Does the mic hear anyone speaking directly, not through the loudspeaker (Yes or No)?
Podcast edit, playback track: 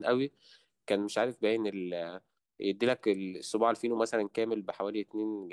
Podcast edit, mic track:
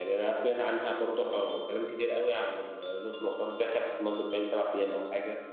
Yes